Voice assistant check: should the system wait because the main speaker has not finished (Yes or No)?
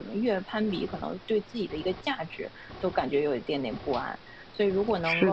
Yes